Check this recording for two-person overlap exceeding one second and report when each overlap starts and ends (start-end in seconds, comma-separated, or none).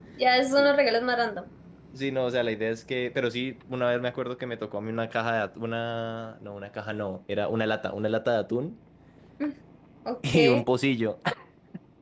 none